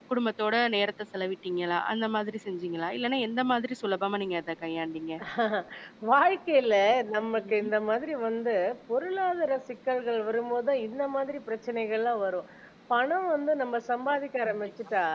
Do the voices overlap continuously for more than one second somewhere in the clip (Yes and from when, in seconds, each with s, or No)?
No